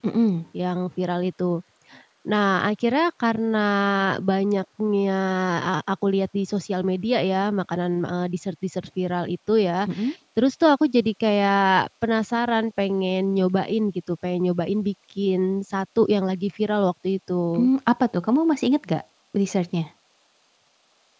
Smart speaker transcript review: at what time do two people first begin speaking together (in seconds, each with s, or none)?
none